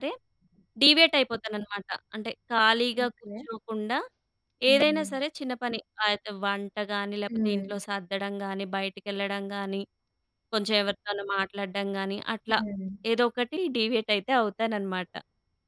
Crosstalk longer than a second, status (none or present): none